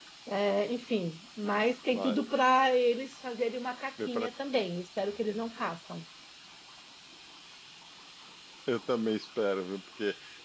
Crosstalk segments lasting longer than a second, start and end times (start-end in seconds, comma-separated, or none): none